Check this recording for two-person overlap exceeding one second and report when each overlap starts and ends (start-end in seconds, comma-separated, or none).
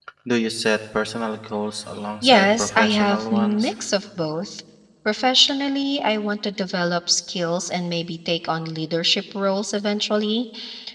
2.2-3.7